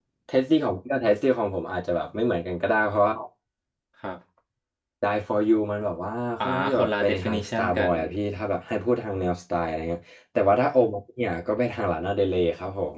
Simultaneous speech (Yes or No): Yes